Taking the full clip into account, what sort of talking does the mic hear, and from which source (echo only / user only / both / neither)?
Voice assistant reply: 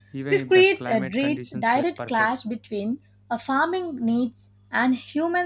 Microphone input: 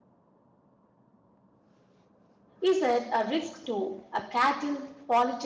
user only